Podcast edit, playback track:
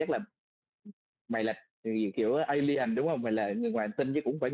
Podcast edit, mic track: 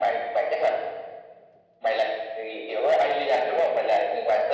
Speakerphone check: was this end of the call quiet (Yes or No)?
Yes